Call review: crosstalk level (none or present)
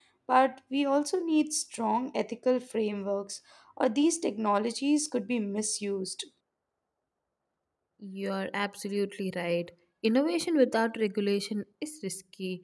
none